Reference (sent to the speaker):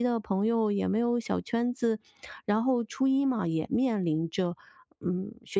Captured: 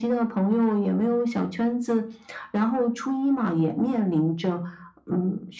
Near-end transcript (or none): none